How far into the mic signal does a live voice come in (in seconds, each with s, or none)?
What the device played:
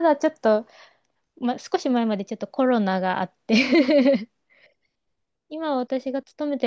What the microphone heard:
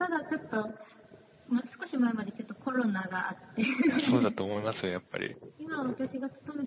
3.9 s